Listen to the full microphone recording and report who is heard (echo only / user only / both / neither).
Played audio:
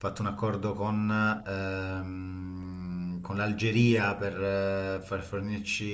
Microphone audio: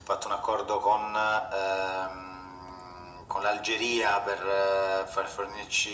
echo only